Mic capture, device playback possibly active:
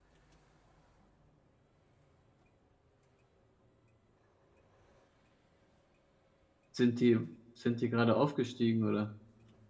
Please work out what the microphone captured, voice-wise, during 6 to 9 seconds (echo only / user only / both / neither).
user only